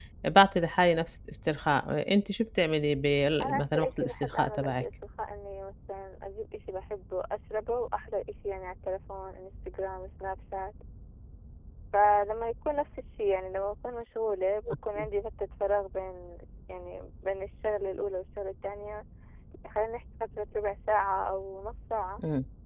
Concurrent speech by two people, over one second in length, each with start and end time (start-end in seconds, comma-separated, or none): 3.4-4.8